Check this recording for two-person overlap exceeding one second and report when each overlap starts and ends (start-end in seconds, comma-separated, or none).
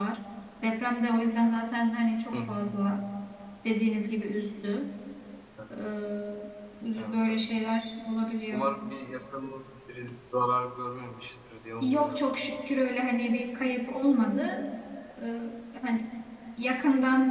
none